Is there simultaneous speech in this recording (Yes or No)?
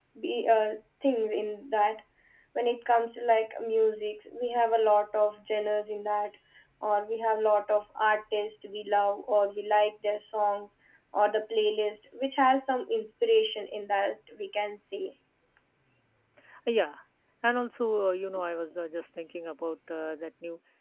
No